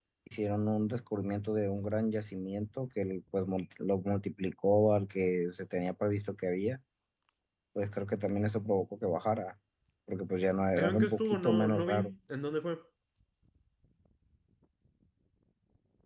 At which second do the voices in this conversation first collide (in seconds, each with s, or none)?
10.8 s